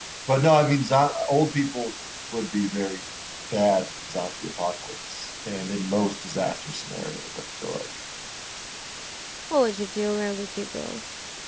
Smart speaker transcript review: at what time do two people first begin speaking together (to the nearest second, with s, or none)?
none